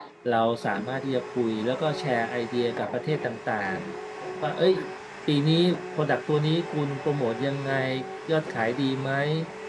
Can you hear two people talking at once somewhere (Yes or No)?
No